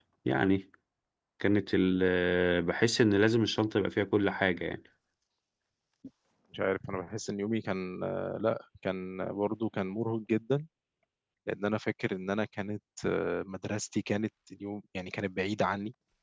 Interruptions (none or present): none